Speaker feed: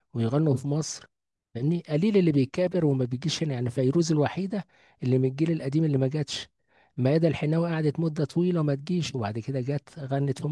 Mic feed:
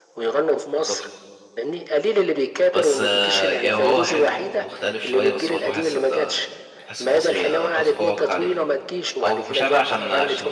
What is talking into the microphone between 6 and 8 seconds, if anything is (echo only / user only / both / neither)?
both